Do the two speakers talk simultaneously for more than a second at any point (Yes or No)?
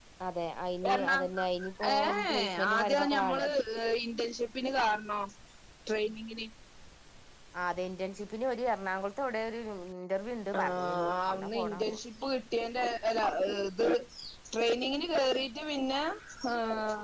Yes